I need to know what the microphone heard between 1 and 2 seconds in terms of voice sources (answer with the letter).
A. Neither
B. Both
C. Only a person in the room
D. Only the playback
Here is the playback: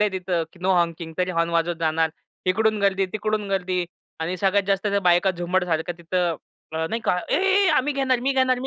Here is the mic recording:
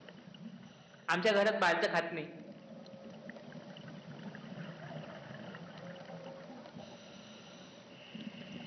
C